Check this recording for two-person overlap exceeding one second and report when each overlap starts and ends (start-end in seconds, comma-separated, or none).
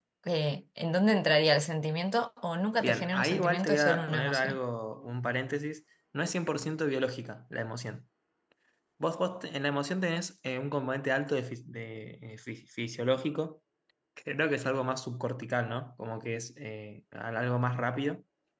2.8-4.6